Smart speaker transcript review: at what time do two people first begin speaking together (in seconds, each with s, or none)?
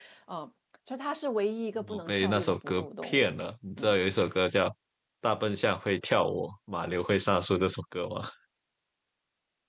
1.8 s